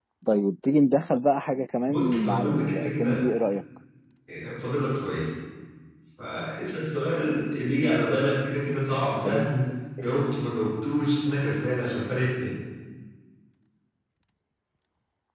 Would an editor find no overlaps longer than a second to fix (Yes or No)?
No